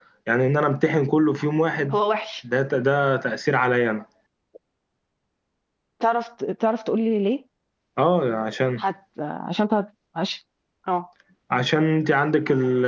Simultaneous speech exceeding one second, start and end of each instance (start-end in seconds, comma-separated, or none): none